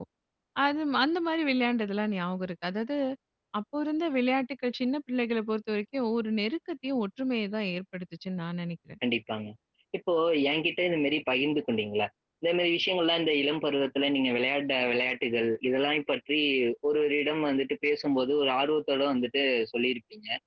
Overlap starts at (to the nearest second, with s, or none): none